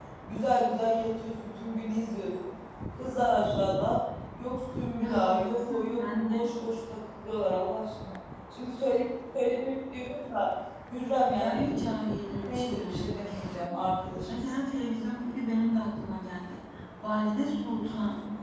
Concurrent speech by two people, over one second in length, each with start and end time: 4.9-6.5, 12.4-13.8

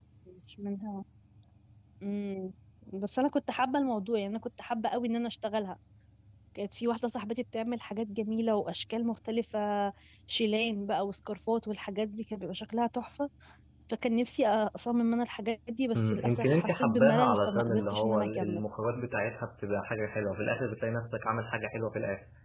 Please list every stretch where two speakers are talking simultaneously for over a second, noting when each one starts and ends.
15.9-18.6

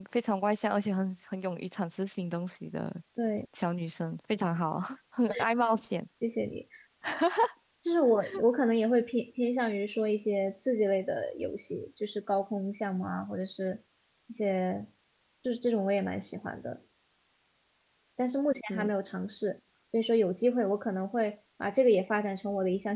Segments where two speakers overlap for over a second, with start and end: none

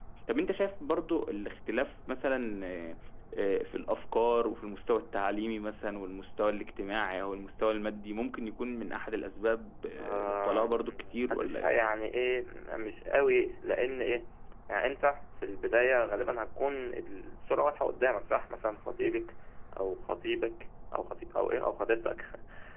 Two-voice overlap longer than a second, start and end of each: 10.0-11.8

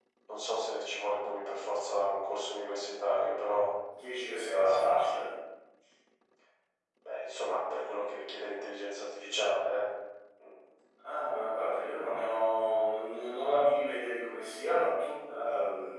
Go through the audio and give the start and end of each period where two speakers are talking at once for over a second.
none

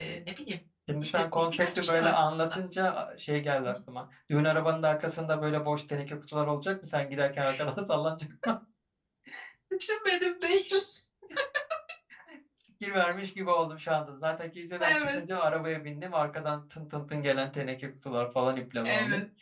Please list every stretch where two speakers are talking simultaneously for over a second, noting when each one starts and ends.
1.0-2.6

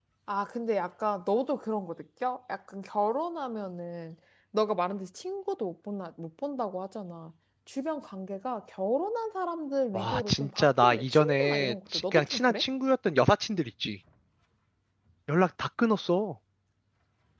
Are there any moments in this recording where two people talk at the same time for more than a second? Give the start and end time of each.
9.9-12.6

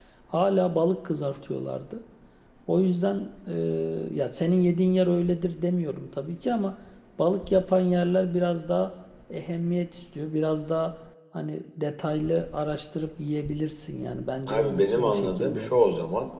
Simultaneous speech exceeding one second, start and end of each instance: 14.5-15.9

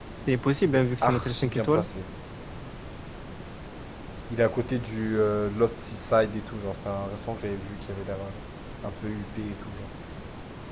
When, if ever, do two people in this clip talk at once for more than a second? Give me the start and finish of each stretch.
0.6-1.8

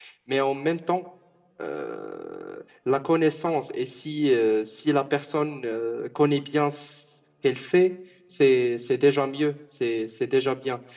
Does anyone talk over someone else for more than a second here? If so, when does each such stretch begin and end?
none

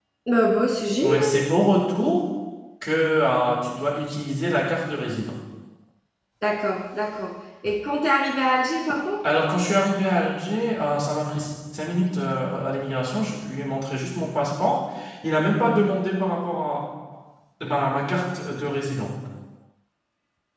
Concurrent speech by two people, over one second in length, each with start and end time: none

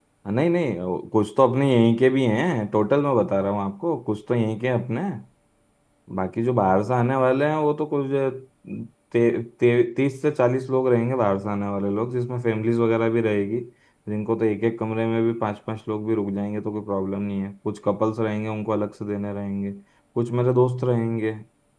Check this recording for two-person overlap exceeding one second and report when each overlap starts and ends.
none

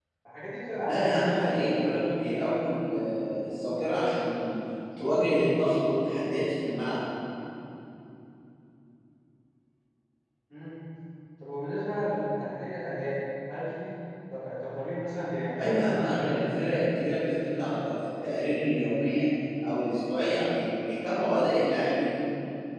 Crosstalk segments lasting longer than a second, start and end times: 0.8-2.2, 15.6-17.1

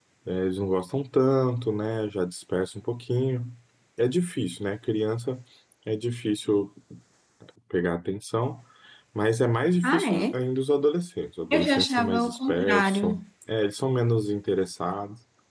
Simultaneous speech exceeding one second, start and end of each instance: 11.5-13.2

